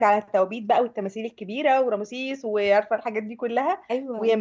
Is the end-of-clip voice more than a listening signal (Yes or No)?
No